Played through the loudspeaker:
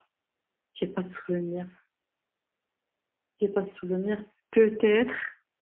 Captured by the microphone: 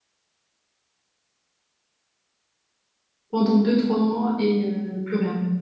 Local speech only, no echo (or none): pendant deux, trois mois et euh, plus rien.